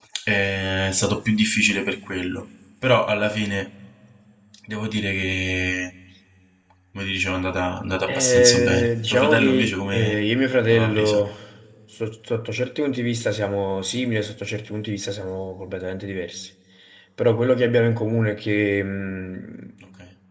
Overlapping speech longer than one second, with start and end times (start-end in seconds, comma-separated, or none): 8.1-10.2